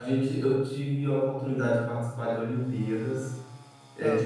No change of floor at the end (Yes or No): Yes